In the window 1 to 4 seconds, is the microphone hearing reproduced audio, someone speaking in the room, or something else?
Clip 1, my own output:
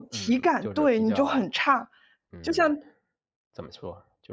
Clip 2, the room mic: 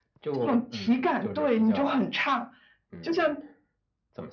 echo only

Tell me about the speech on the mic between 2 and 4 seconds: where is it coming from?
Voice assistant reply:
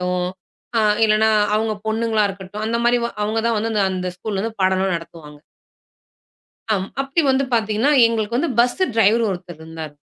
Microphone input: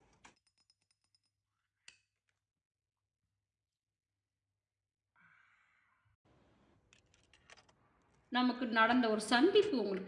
neither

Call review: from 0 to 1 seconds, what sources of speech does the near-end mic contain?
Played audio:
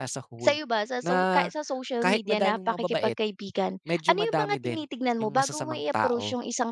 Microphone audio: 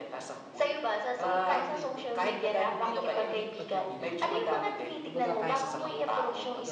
echo only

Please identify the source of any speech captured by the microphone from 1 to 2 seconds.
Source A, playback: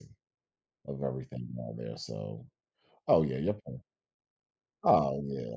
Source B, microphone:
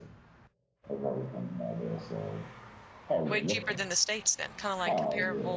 echo only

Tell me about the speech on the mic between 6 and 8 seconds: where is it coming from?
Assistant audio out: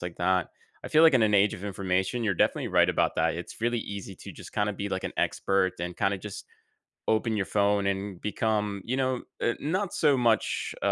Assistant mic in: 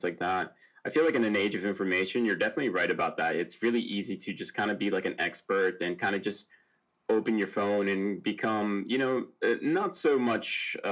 echo only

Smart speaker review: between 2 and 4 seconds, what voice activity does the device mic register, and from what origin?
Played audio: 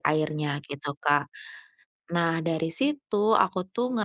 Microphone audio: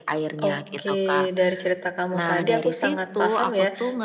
both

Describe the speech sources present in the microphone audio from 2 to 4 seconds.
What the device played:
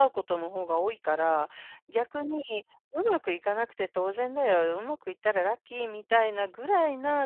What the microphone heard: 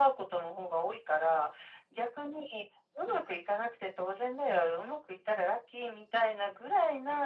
echo only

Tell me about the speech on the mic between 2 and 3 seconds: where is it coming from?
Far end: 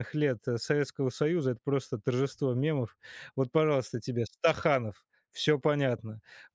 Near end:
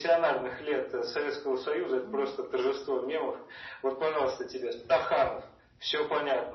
both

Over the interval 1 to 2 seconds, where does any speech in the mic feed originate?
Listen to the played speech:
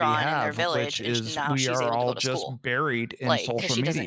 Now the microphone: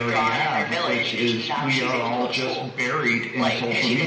echo only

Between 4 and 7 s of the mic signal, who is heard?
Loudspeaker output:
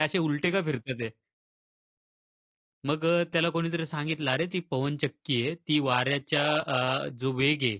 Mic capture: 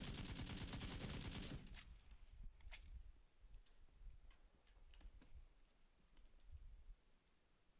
neither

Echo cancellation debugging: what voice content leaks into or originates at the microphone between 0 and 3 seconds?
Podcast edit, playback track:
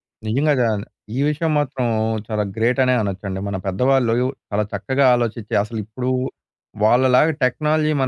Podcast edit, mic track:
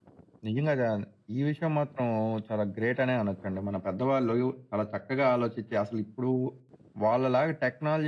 echo only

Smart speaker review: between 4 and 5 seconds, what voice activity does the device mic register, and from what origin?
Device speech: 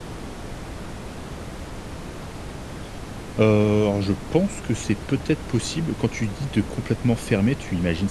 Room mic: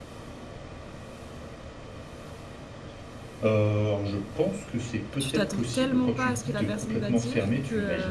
echo only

